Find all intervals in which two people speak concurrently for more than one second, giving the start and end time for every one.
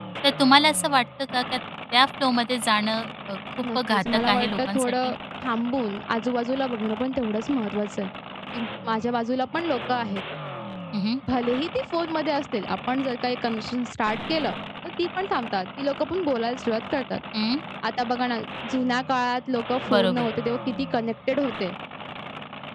3.8-5.2

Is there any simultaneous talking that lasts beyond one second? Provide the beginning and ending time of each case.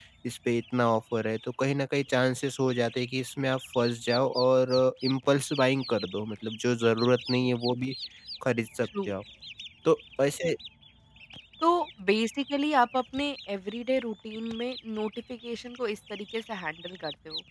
none

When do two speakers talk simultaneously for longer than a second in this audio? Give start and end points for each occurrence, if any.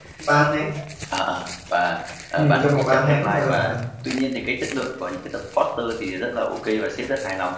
2.4-3.8

